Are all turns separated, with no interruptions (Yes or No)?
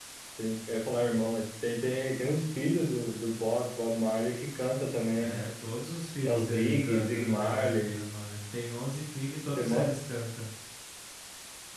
No